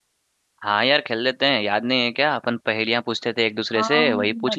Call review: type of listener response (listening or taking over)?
taking over